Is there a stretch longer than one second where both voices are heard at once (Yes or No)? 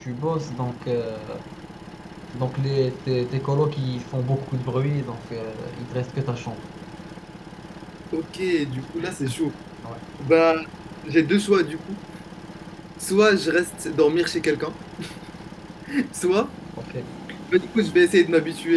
No